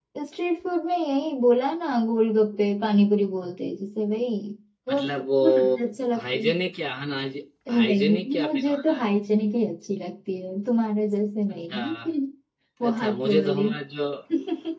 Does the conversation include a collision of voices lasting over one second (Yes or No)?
Yes